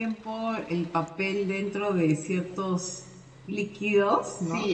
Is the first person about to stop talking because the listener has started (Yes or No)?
Yes